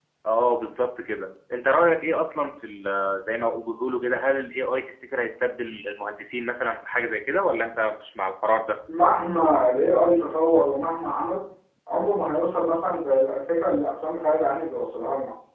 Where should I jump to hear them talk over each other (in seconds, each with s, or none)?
none